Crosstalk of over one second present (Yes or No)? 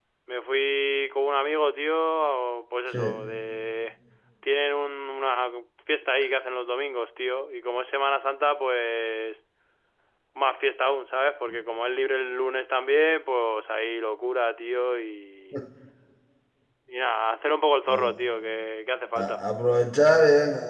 No